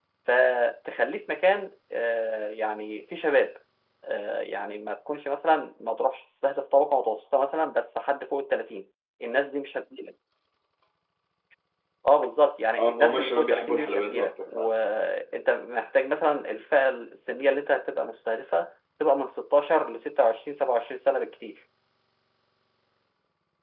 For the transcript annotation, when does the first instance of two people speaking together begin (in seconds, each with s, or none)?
12.8 s